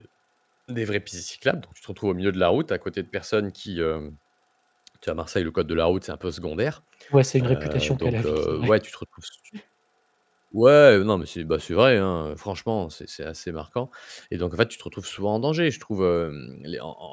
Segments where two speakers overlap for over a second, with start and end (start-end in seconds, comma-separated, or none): 7.4-8.7